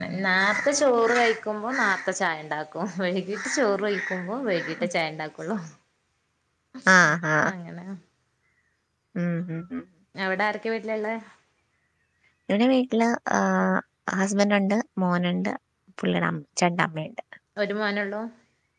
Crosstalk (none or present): none